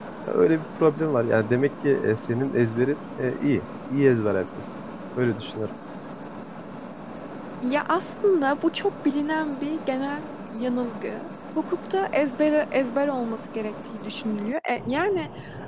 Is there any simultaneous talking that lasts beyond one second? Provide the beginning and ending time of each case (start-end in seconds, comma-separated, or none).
none